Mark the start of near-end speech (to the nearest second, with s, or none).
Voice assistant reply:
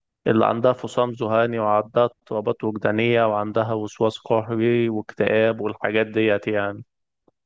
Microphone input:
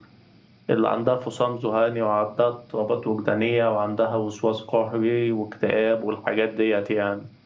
none